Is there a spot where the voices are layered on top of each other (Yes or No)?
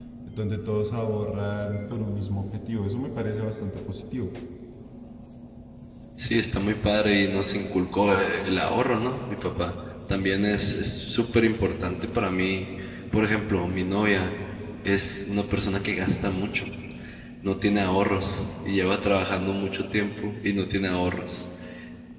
No